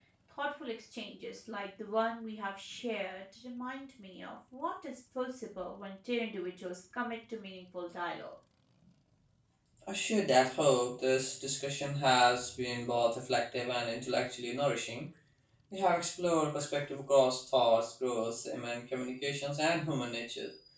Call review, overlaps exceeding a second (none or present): none